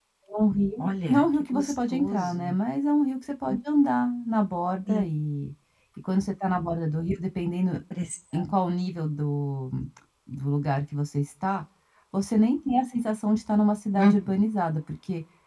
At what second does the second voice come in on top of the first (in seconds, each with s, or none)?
0.8 s